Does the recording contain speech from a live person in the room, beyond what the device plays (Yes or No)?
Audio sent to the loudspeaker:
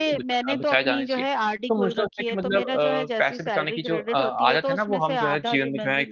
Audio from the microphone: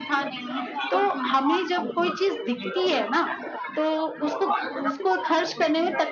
Yes